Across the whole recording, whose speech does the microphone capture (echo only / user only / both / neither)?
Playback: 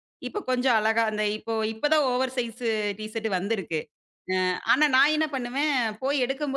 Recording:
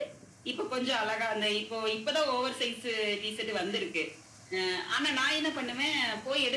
echo only